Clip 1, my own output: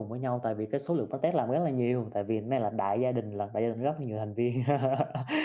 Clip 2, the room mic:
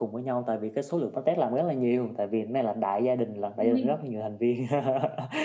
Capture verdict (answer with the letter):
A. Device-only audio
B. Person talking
B